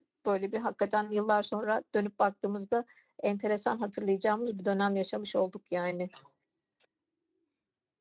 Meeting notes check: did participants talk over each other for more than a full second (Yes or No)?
No